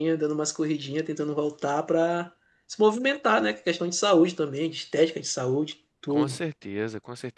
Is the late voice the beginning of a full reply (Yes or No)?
Yes